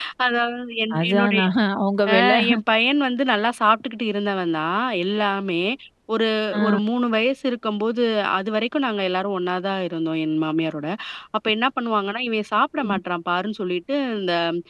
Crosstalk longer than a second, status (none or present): none